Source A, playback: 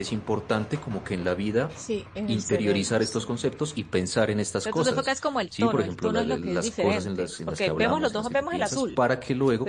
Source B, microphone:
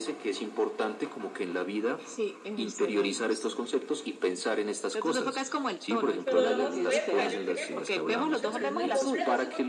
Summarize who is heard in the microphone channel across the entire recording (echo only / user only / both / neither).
both